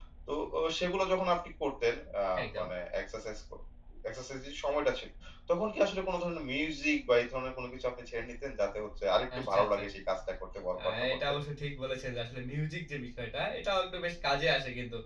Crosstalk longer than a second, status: none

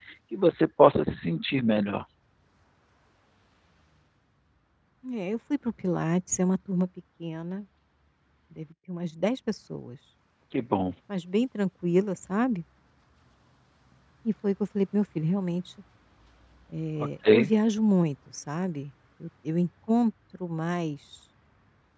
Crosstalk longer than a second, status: none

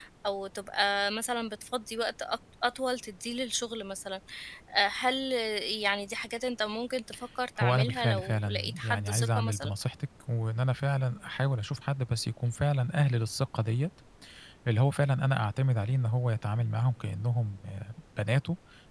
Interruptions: present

